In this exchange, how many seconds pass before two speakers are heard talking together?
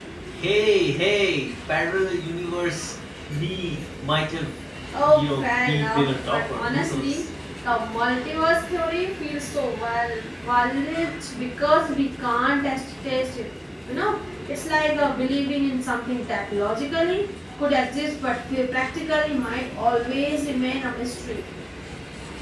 5.1 s

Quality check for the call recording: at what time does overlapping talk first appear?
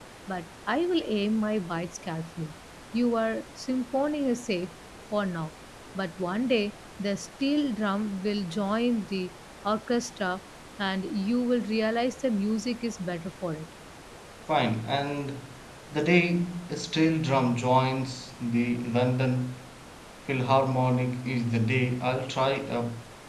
none

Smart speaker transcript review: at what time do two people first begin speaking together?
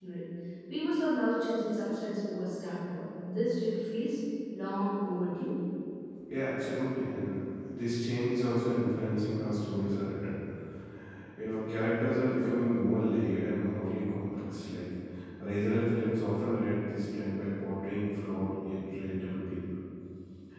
none

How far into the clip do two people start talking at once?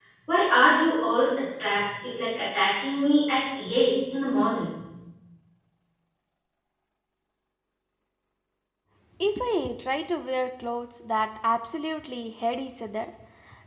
none

